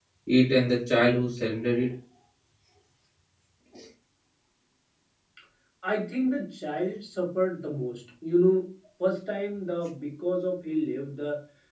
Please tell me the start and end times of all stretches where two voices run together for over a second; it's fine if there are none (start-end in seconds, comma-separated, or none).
none